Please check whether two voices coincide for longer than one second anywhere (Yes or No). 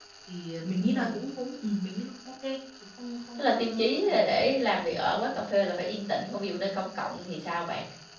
Yes